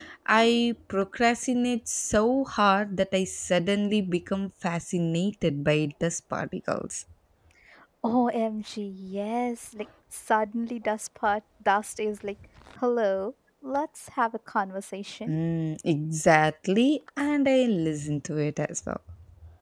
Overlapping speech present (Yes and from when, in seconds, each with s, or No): No